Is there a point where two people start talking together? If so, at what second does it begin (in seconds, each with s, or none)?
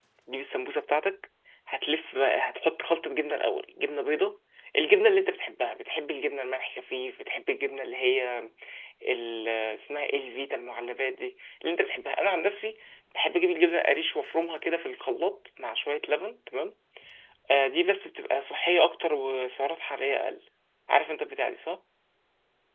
none